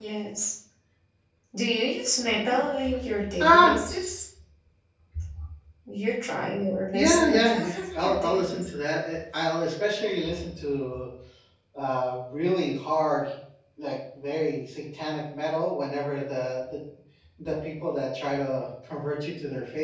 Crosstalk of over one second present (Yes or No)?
Yes